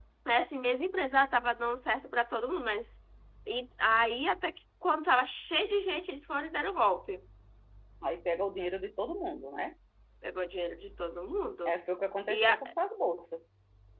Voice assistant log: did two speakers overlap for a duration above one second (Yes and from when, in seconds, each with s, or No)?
No